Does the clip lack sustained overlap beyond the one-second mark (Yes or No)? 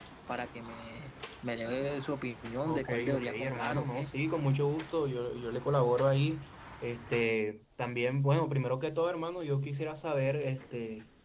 No